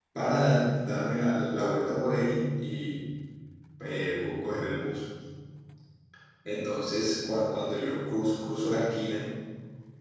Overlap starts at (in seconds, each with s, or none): none